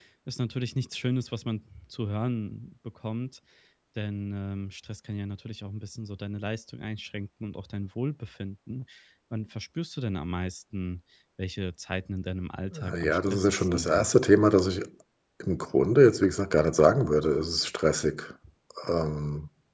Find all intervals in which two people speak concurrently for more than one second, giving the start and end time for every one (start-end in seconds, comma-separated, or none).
12.7-14.1